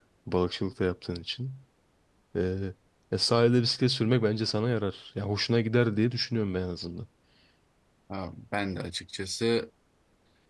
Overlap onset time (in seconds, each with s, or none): none